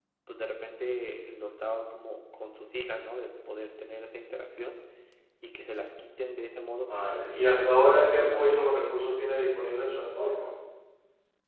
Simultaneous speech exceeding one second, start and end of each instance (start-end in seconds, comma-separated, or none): 6.9-8.7